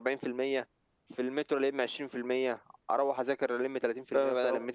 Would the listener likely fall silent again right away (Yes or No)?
Yes